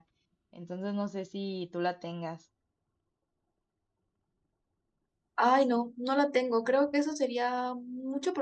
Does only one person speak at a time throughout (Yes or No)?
Yes